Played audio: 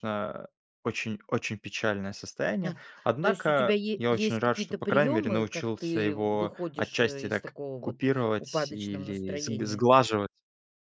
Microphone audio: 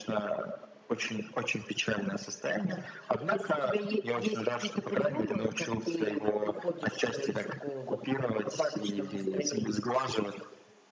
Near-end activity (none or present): none